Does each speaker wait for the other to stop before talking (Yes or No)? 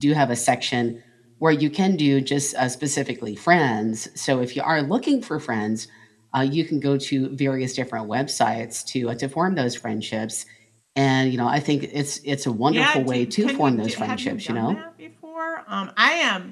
No